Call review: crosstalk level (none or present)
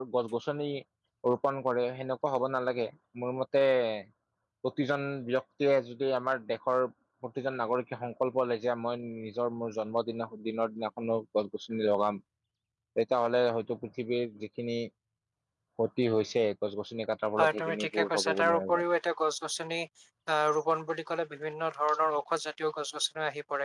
present